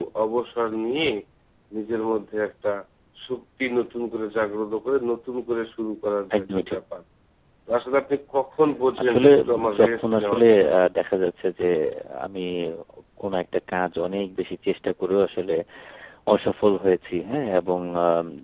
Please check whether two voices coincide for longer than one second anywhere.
Yes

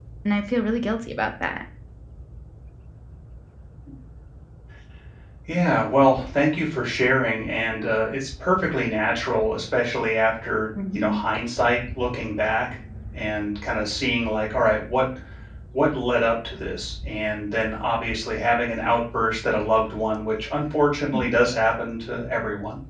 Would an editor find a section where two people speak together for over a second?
No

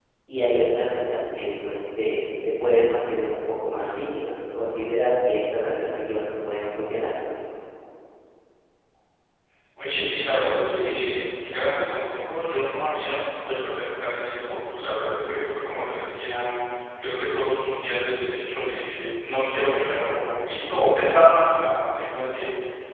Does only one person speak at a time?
Yes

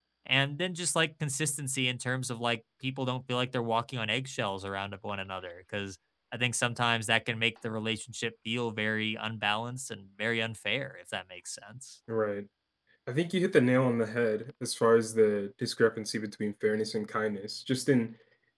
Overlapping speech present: No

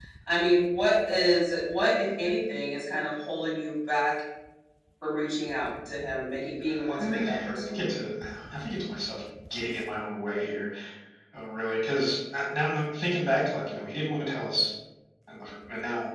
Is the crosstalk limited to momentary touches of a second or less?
No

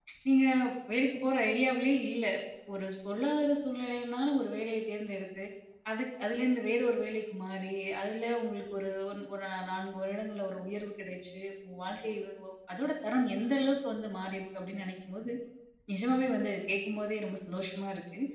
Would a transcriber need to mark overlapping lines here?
No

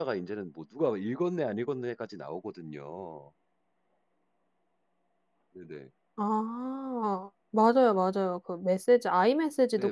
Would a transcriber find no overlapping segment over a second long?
Yes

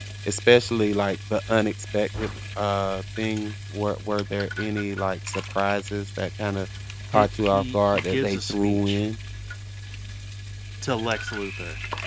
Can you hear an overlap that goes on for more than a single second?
Yes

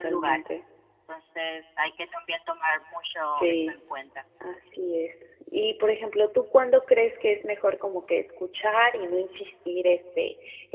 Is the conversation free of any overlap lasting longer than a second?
Yes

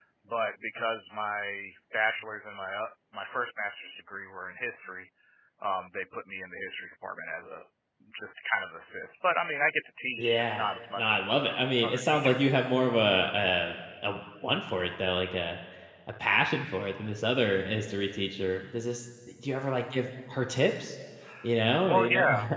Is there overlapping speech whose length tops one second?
Yes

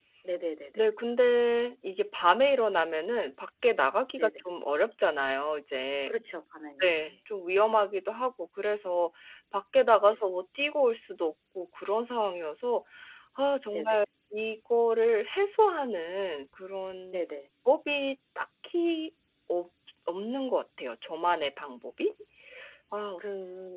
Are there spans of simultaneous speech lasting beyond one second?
No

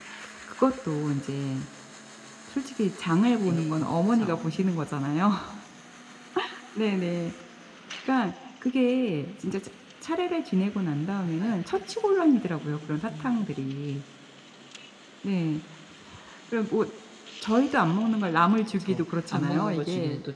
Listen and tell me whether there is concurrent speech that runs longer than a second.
Yes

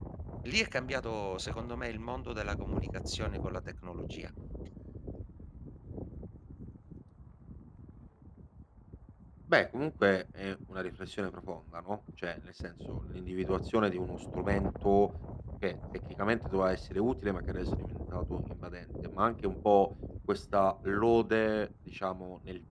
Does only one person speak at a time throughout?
Yes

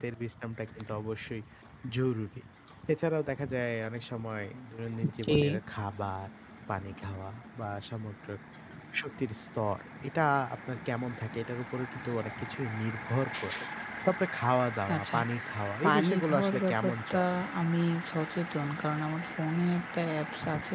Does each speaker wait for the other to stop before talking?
No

